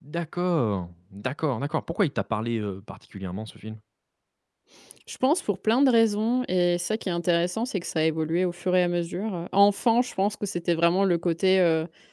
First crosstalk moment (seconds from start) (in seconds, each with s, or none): none